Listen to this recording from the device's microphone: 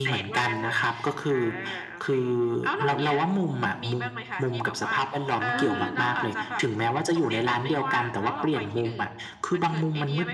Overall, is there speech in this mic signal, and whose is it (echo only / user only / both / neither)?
both